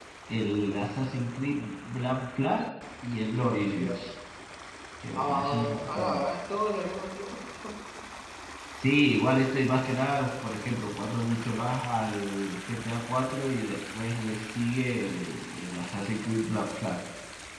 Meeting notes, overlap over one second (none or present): present